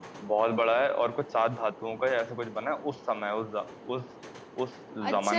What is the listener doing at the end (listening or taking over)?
taking over